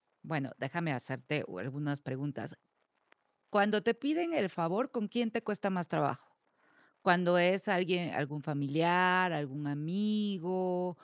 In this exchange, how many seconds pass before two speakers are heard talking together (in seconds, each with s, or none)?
none